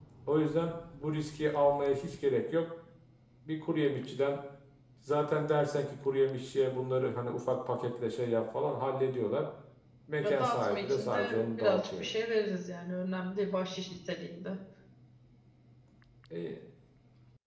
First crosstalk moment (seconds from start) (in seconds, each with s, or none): 10.2 s